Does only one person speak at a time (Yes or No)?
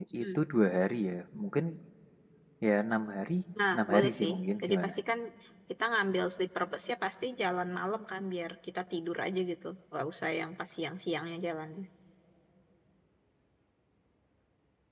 No